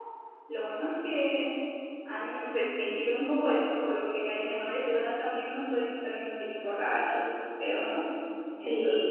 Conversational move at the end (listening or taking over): taking over